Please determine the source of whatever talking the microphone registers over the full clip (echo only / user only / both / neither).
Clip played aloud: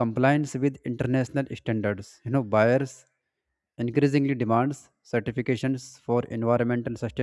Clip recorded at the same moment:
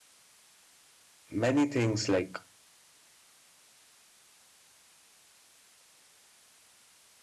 user only